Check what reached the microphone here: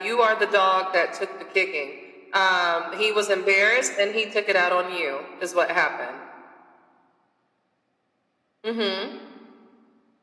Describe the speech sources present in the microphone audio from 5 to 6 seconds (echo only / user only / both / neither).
echo only